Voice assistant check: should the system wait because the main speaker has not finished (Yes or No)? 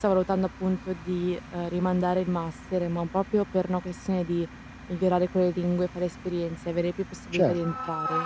No